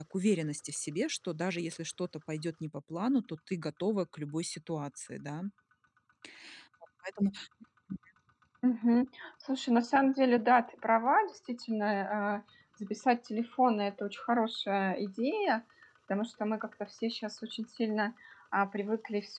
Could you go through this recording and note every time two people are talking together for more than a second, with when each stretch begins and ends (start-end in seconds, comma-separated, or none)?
none